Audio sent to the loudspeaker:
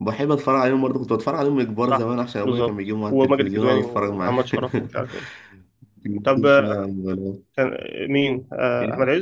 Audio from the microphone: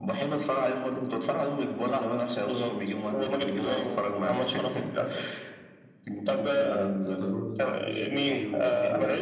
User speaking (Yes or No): Yes